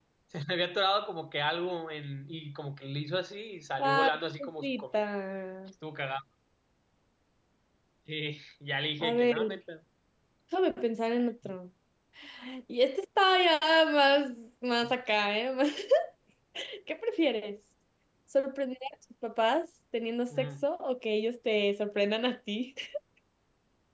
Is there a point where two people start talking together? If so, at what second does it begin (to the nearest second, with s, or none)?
4 s